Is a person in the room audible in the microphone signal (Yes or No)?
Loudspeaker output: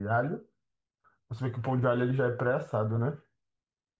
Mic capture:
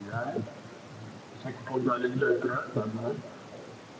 No